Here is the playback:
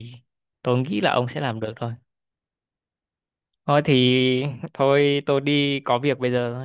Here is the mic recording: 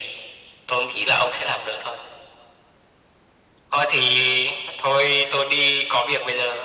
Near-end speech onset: none

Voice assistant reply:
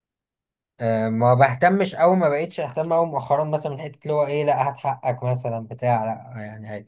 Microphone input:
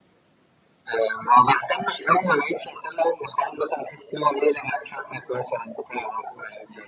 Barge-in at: none

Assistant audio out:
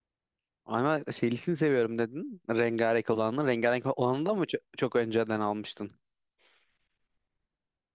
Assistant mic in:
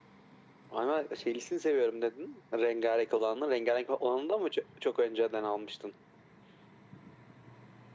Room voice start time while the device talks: none

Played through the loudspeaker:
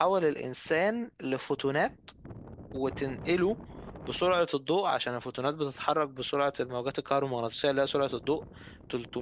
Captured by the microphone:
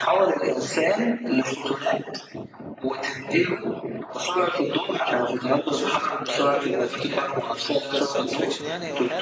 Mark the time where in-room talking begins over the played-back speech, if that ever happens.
5 s

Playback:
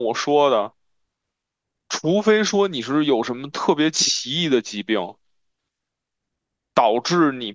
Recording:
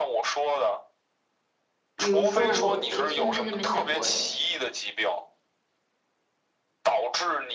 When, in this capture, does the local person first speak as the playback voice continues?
2 s

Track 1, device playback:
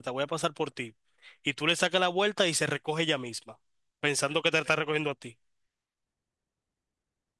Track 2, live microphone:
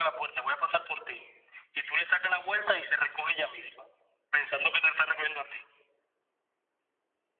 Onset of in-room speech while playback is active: none

